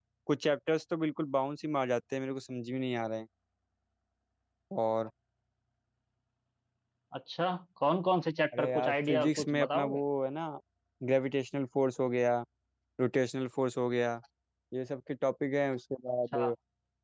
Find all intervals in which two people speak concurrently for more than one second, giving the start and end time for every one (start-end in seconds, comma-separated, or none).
8.6-10.0